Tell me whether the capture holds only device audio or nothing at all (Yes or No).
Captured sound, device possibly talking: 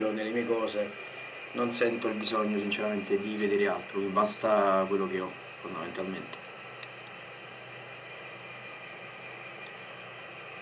Yes